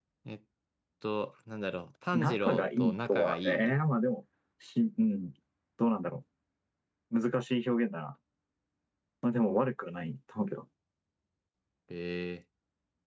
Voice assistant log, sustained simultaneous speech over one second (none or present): present